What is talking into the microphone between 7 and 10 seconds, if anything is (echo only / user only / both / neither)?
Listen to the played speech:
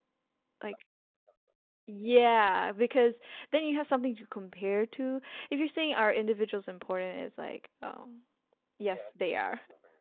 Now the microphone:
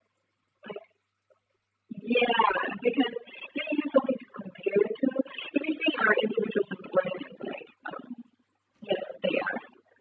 echo only